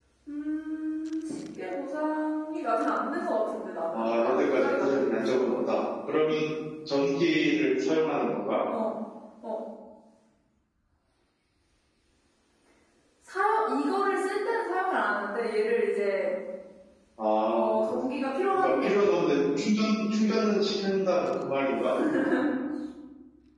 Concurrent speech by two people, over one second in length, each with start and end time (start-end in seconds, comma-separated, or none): 3.9-5.8